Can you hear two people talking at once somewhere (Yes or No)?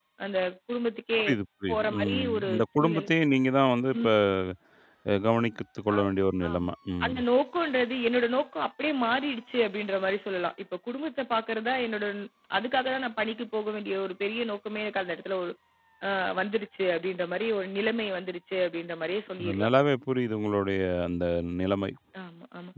Yes